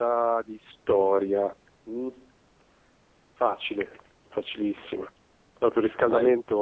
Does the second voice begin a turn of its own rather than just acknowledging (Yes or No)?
No